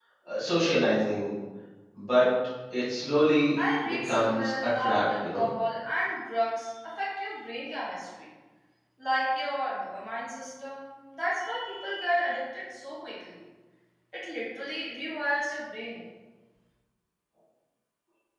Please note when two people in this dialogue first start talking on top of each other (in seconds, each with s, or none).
3.8 s